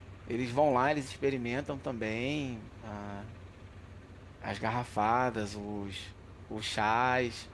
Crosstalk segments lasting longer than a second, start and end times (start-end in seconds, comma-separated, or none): none